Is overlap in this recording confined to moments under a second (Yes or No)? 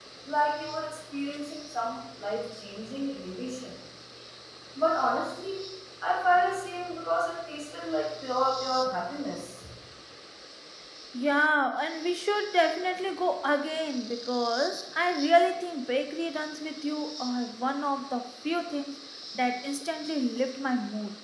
Yes